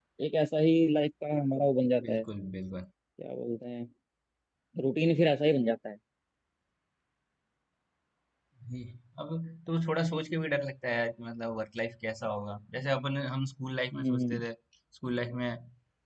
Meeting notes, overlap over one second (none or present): none